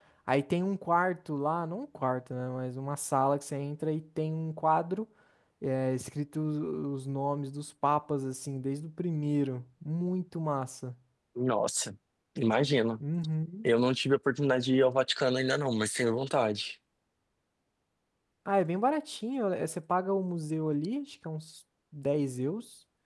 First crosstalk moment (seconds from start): none

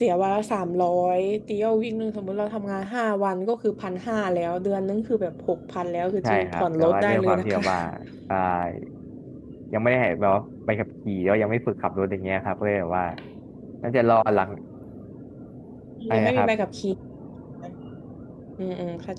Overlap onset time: 6.2 s

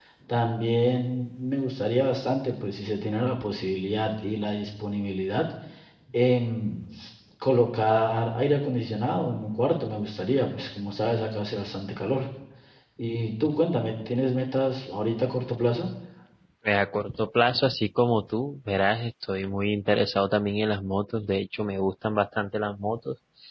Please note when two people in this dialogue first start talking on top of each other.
none

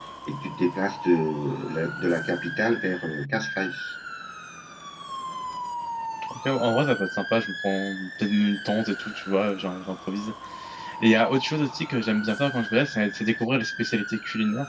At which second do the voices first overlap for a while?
none

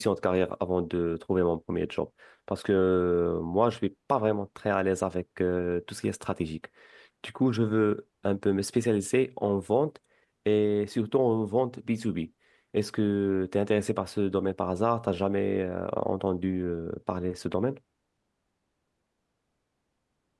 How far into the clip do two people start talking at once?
none

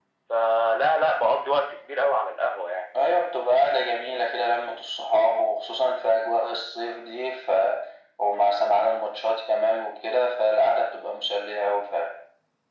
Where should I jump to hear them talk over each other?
none

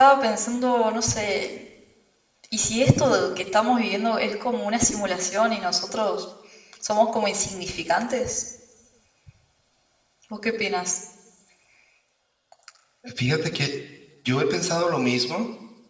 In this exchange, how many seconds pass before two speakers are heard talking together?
none

